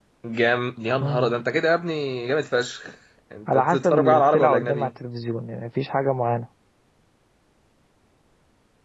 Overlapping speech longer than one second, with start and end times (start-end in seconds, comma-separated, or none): 3.5-4.9